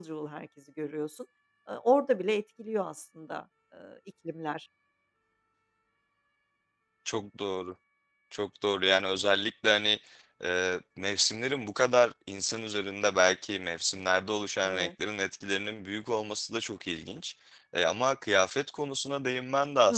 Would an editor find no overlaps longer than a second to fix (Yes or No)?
Yes